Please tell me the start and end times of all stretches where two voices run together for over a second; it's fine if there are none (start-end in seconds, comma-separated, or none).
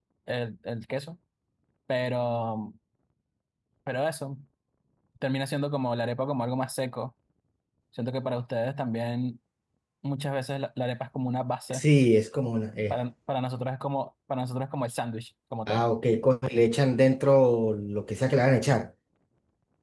none